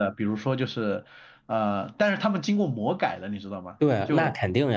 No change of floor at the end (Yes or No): No